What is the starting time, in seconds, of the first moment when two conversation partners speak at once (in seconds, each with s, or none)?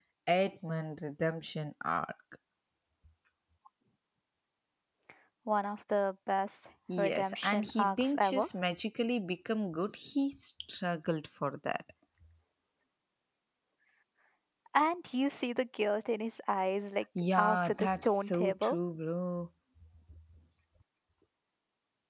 7.0 s